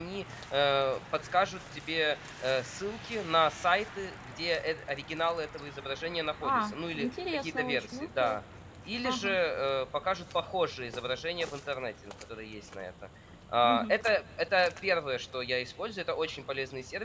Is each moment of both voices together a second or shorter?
No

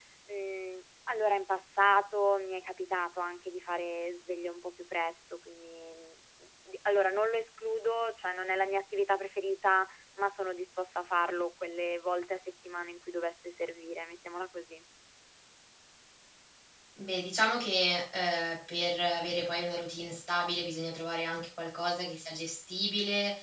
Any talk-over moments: No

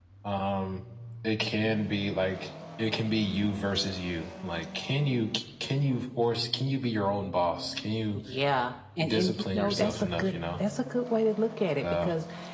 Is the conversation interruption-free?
No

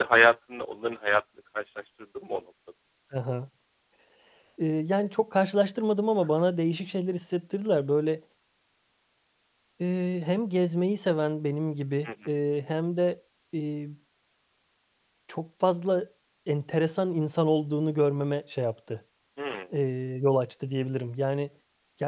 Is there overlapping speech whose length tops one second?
No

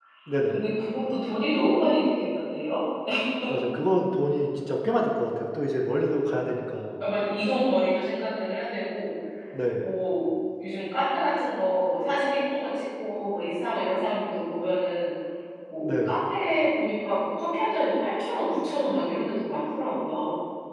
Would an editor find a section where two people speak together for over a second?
No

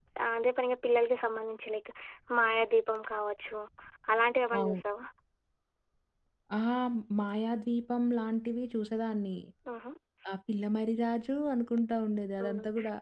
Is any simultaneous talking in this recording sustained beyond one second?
No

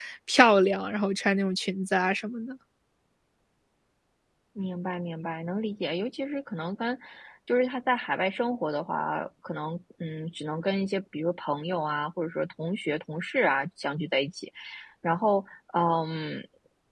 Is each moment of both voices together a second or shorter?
Yes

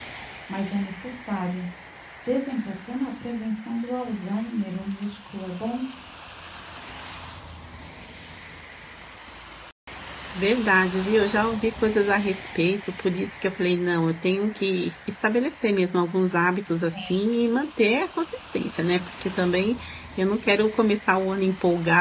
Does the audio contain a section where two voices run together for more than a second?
No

